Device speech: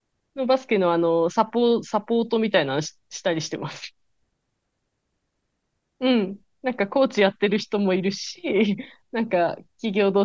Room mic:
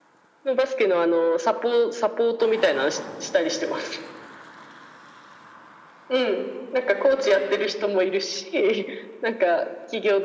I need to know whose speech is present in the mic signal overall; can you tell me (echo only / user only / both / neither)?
echo only